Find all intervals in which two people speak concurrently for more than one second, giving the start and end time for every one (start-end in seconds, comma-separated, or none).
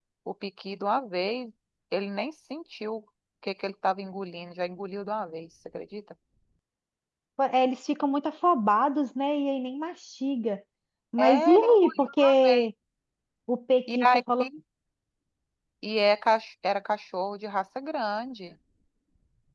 11.2-12.7